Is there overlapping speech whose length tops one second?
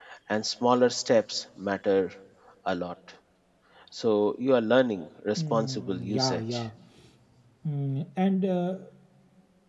Yes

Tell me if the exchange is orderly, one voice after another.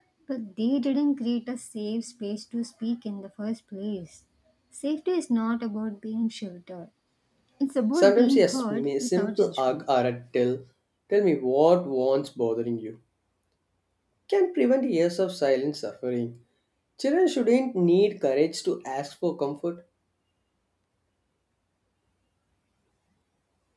No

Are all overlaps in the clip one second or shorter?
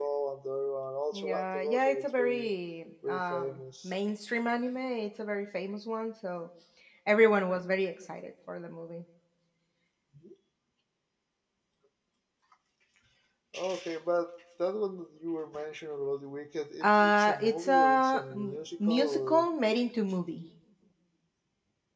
No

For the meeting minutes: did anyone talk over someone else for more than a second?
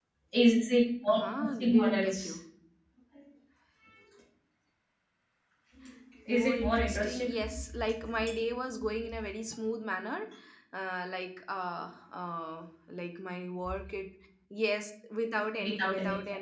Yes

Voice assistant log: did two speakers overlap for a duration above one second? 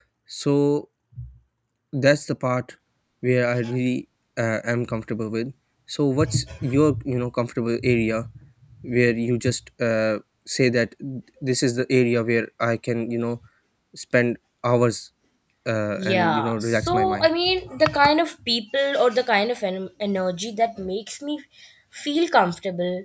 Yes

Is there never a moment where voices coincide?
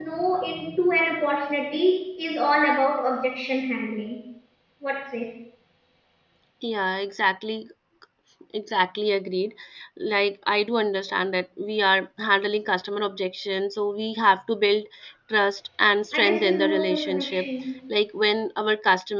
No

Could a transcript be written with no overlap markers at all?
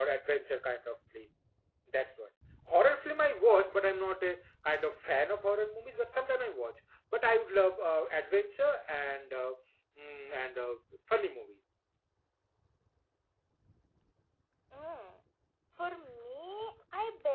Yes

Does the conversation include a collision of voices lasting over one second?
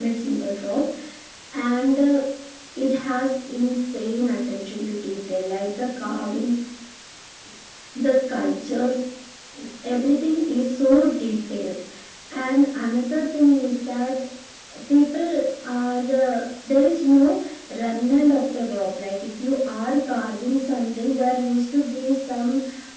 No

